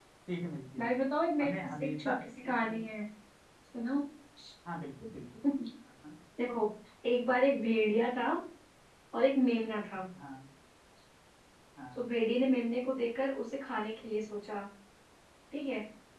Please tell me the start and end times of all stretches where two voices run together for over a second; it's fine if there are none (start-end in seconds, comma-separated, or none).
1.4-2.8